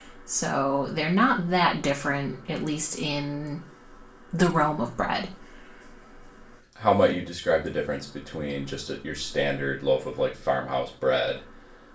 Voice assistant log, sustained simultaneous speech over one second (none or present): none